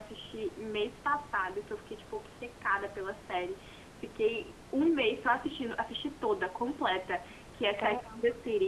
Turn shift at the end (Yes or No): No